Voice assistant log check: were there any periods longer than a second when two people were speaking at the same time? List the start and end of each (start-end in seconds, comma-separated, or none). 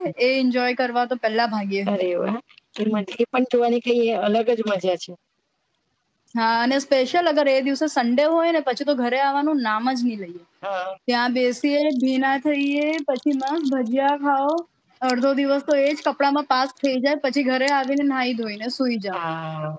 none